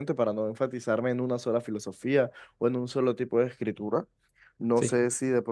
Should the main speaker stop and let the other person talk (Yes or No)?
No